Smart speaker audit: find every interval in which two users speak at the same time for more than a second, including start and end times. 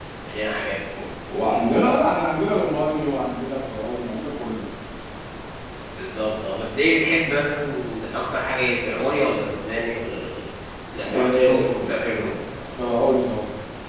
11.1-12.3

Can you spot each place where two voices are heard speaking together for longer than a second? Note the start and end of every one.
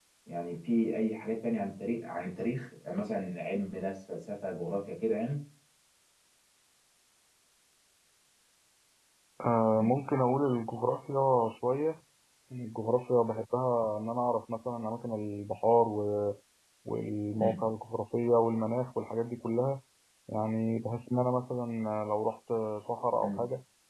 none

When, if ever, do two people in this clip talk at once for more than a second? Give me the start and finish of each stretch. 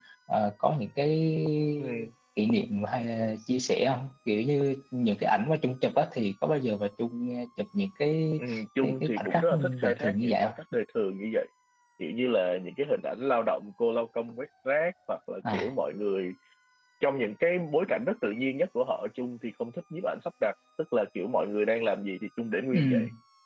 8.8-10.5

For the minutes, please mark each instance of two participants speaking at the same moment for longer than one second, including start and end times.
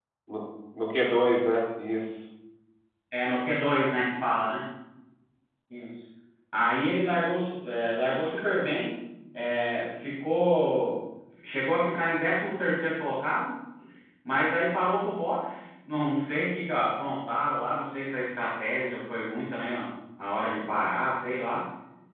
none

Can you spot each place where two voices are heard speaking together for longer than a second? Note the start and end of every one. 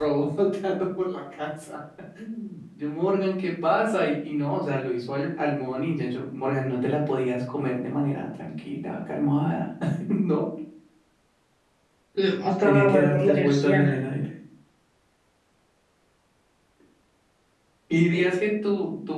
12.6-13.8

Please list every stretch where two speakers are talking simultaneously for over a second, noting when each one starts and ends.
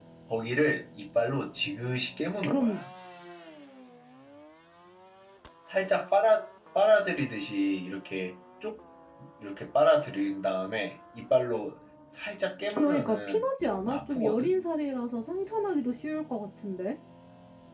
12.7-14.5

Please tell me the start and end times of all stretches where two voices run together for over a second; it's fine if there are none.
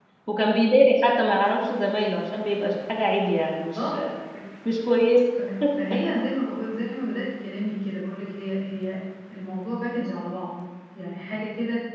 none

